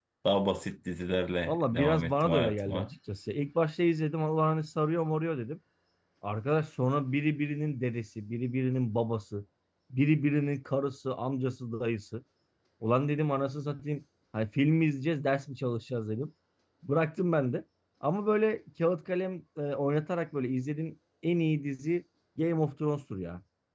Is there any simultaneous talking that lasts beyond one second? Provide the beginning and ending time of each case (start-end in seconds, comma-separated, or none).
1.5-2.9